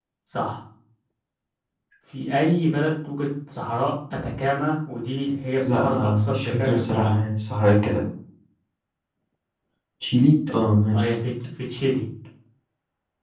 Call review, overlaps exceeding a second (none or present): present